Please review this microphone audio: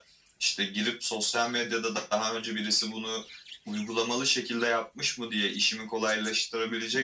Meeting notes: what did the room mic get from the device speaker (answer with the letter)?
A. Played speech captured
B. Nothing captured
A